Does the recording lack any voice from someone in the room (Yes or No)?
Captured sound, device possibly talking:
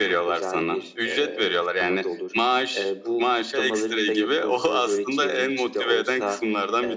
Yes